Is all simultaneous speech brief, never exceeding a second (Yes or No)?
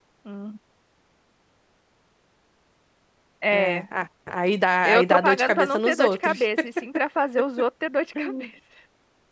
No